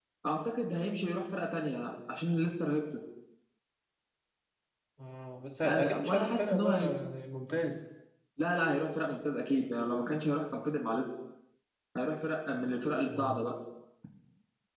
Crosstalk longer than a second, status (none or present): present